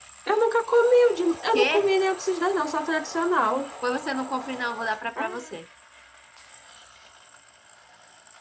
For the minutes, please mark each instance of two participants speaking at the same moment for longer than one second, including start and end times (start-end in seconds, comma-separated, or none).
none